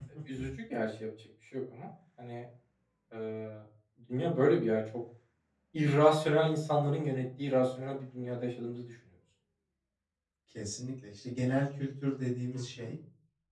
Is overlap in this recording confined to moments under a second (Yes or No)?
Yes